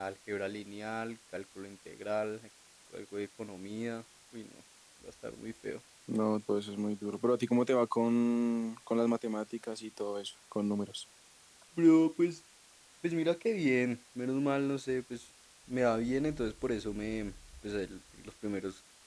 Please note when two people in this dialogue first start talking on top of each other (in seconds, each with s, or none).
none